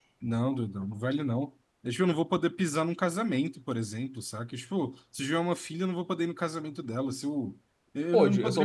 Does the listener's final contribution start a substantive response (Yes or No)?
Yes